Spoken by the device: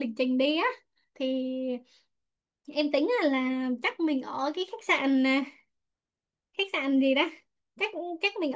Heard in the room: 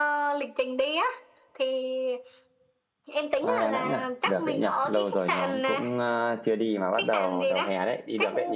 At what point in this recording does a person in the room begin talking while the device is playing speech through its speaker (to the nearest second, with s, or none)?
3 s